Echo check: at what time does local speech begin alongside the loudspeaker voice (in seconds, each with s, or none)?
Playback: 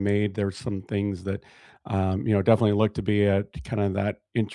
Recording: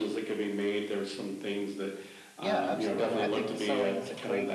2.4 s